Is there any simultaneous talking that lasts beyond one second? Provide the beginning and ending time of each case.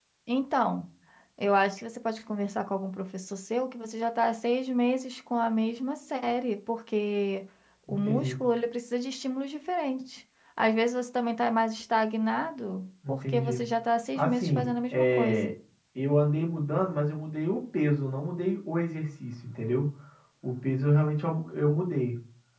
14.2-15.5

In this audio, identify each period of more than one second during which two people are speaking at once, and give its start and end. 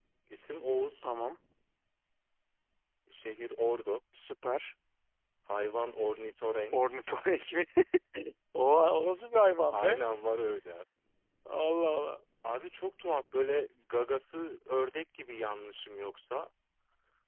none

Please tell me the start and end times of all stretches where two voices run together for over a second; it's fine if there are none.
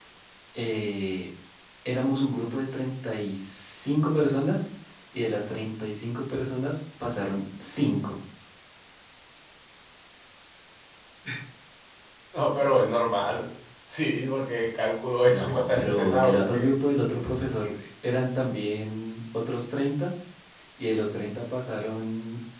15.3-16.7

